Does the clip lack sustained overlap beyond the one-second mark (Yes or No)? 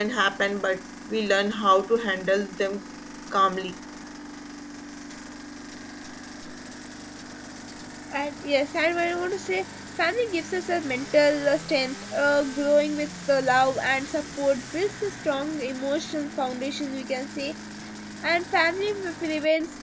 Yes